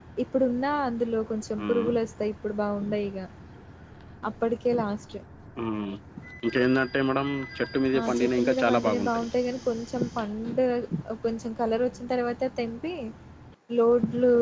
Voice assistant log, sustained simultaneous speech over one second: present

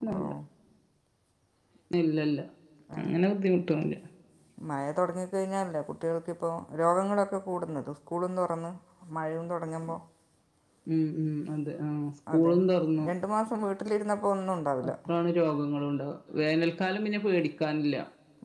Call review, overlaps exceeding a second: none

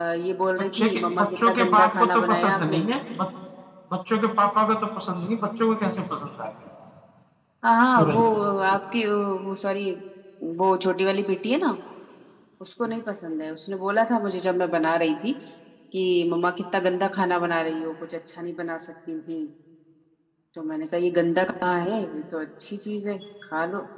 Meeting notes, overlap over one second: present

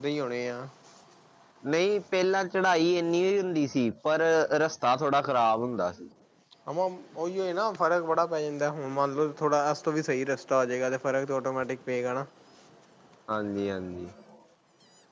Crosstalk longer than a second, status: none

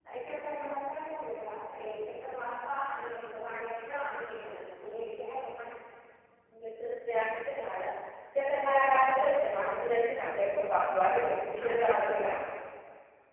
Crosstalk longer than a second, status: none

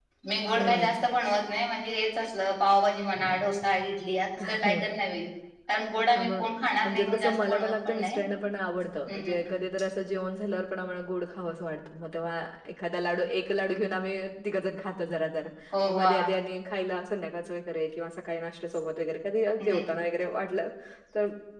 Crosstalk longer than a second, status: present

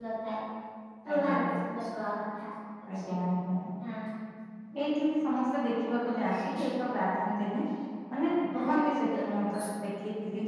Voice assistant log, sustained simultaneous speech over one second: none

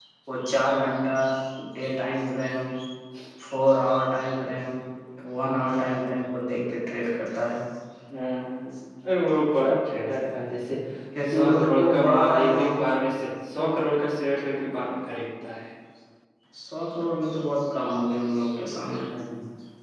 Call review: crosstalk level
present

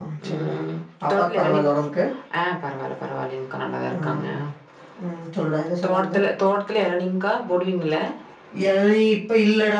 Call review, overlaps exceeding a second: none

